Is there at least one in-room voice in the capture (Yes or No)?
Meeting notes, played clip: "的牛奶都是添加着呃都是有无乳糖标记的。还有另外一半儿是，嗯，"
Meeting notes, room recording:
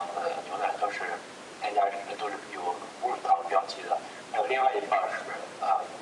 No